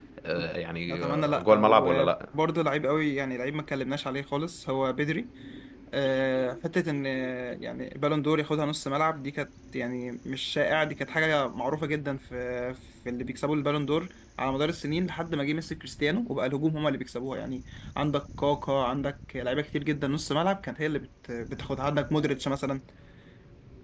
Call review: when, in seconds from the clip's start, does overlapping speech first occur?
0.9 s

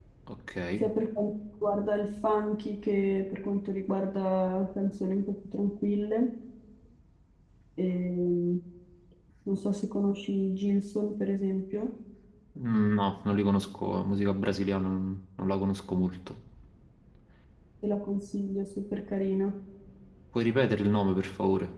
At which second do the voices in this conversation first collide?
none

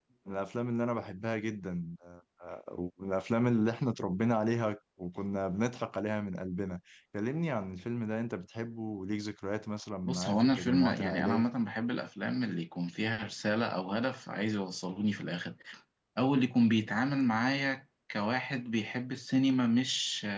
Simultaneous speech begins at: 10.0 s

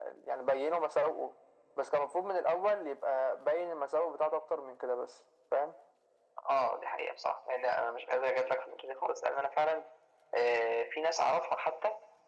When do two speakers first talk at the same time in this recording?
none

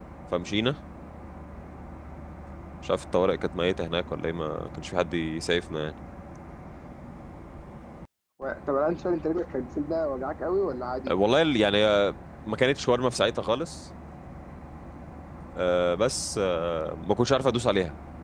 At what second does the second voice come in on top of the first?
none

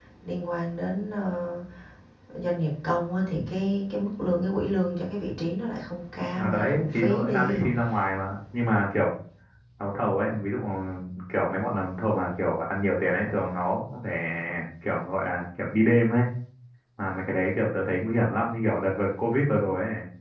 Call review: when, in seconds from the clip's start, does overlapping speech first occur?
6.3 s

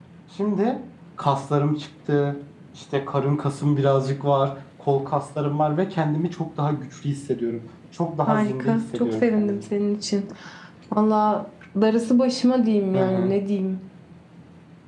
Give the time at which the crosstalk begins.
8.3 s

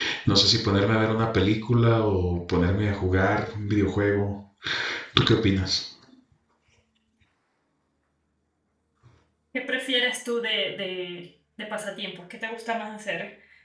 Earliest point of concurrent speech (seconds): none

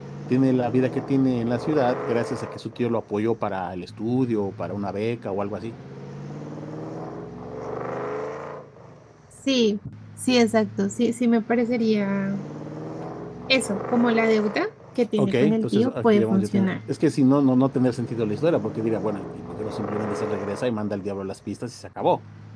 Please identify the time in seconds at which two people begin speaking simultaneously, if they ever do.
15.2 s

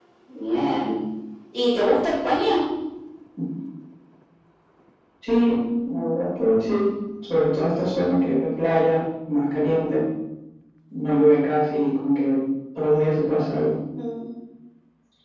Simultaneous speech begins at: none

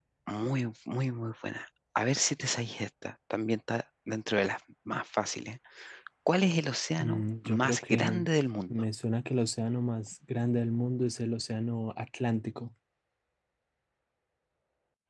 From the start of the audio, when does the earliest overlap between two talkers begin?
7.0 s

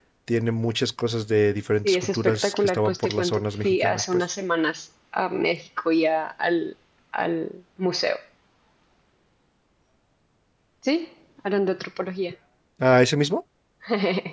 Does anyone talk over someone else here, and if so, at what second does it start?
1.8 s

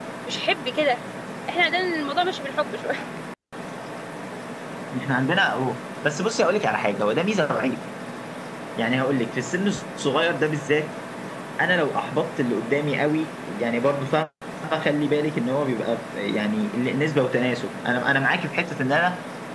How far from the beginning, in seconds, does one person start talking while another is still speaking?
none

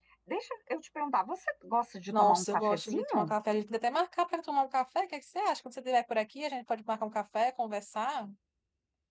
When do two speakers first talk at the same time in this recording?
2.1 s

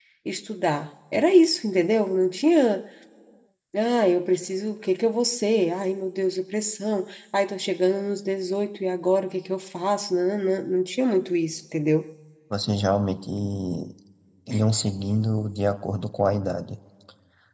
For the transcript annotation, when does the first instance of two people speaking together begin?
none

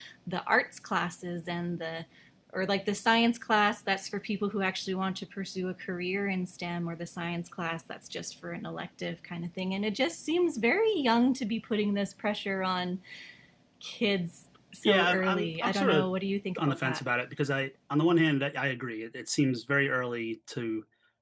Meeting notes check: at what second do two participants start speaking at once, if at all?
14.8 s

